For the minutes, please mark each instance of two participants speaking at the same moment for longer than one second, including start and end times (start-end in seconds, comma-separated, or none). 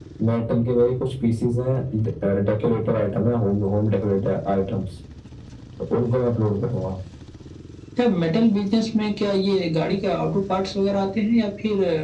none